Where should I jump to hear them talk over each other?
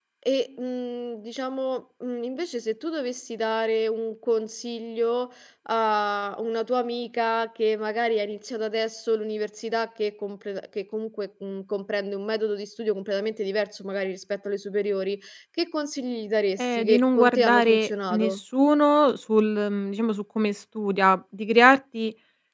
16.6 s

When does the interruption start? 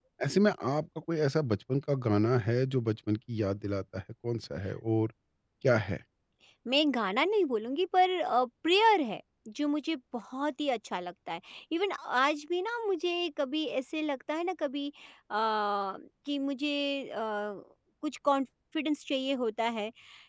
none

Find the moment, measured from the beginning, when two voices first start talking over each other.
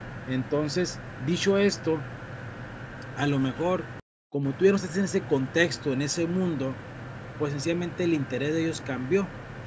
none

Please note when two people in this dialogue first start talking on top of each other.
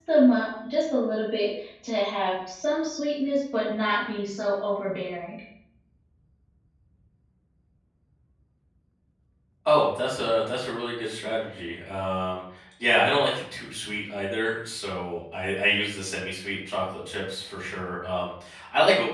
none

